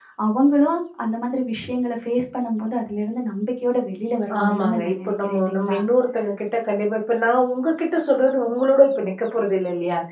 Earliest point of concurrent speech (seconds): 4 s

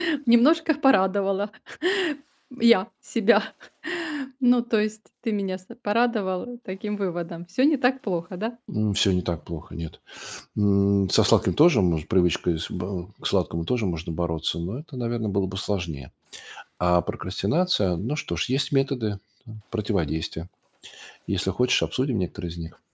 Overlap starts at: none

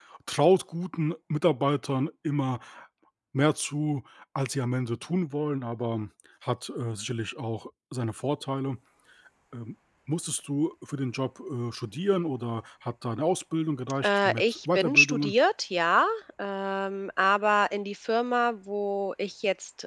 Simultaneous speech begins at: 14 s

